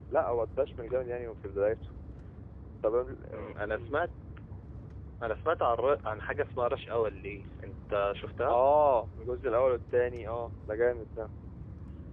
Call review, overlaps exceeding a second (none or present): none